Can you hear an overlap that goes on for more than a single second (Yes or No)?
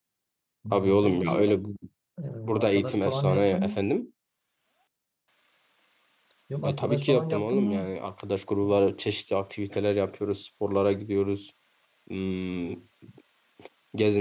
Yes